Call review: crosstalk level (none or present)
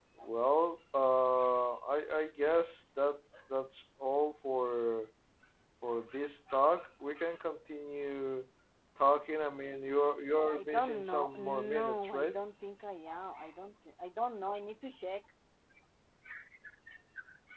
present